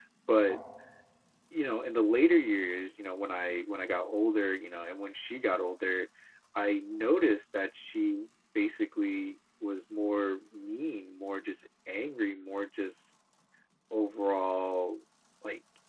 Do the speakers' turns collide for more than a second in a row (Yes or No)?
No